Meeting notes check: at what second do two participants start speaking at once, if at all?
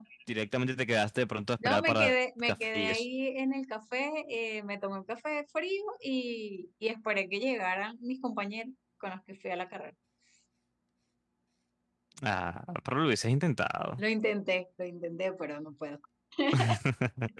1.6 s

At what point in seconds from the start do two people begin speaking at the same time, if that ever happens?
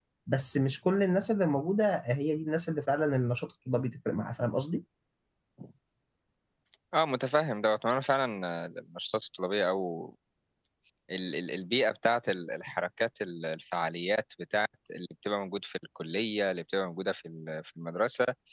none

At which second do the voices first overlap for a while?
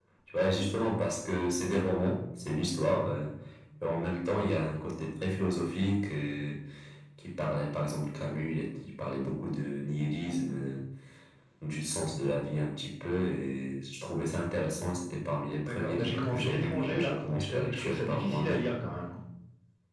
15.7 s

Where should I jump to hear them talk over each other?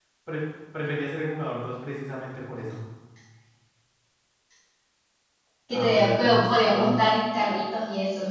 5.7 s

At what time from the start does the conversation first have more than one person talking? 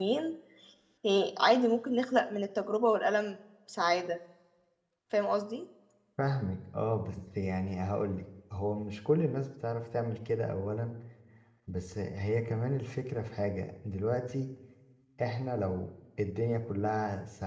none

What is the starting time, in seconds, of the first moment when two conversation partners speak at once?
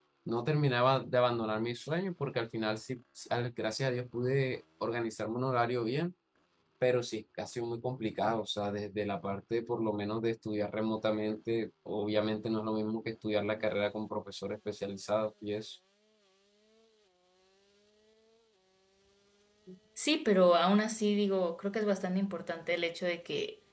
none

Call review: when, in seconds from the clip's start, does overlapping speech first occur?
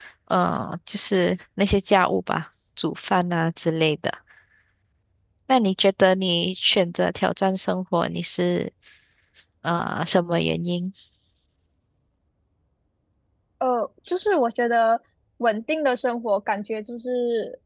none

